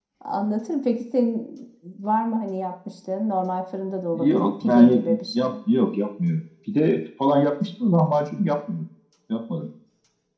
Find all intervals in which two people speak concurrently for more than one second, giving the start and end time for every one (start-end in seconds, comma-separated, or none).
4.1-5.5